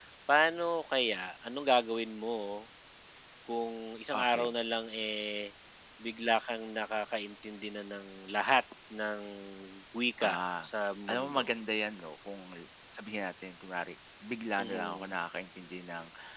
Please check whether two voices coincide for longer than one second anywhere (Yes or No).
No